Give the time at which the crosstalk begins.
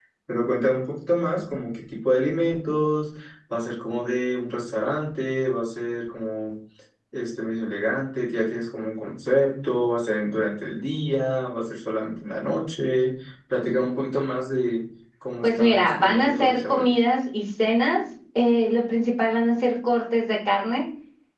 15.4 s

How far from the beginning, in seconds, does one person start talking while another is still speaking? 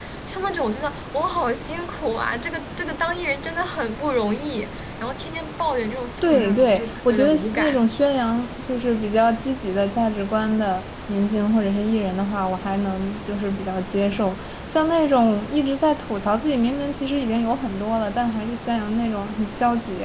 6.2 s

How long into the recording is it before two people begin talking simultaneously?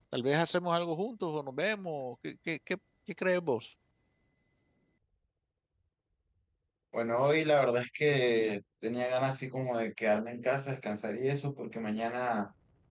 none

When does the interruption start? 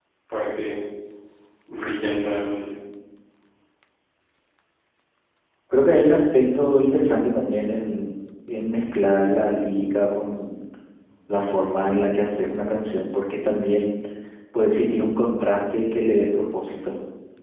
none

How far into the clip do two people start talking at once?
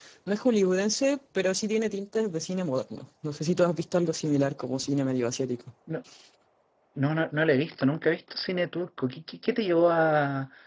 none

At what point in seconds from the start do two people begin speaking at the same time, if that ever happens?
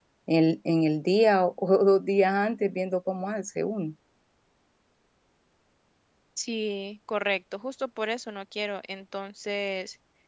none

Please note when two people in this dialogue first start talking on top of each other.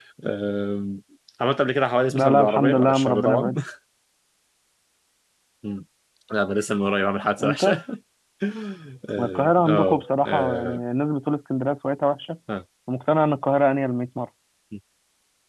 2.1 s

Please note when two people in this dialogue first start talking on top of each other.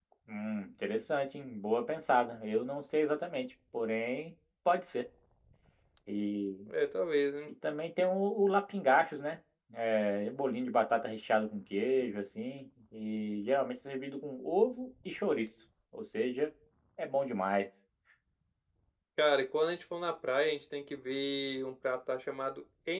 none

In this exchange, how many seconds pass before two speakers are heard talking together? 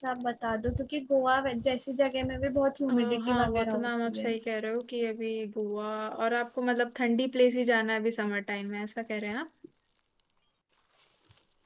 2.9 s

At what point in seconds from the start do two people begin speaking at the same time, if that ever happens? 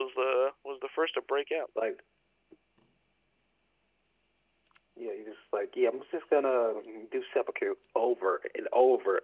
none

